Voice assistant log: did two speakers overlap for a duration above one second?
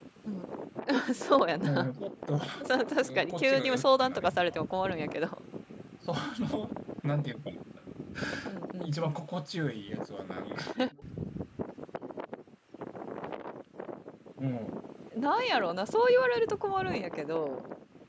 Yes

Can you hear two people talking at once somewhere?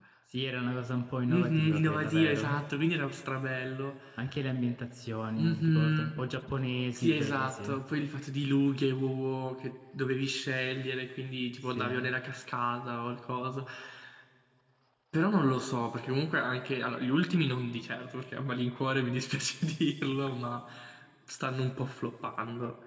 Yes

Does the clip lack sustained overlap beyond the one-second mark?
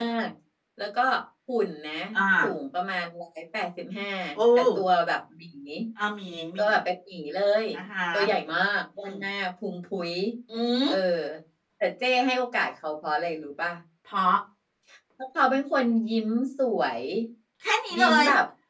Yes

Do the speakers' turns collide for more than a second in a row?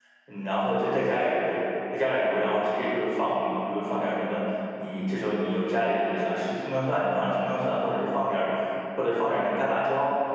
No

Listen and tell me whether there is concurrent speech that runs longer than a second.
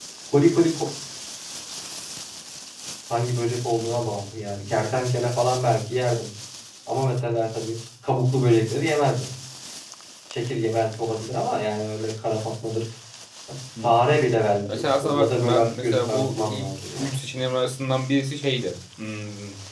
Yes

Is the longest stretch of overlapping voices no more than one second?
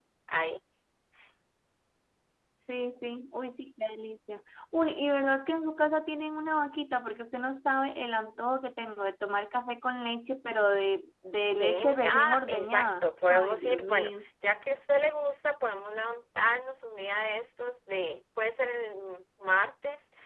No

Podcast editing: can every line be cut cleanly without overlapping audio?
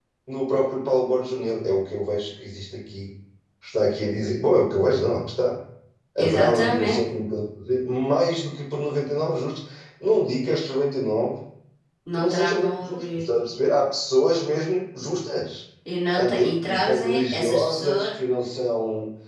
No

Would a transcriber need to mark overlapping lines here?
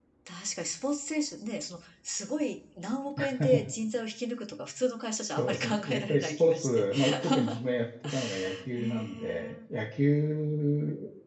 Yes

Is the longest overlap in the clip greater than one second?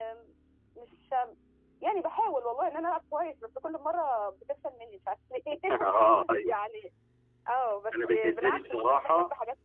Yes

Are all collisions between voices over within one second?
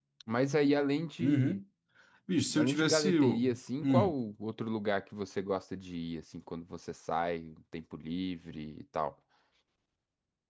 No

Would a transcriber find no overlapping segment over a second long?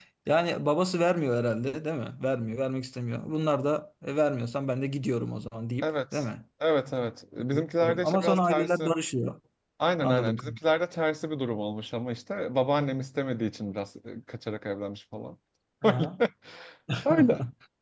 No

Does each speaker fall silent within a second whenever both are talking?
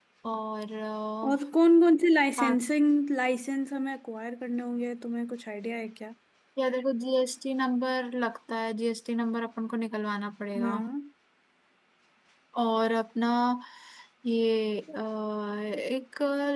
Yes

